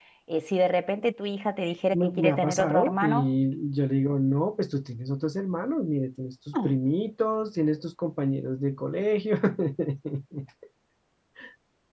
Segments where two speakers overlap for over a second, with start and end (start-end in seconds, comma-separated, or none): 1.9-3.3